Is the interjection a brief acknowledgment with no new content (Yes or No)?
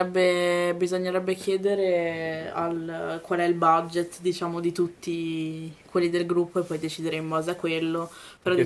No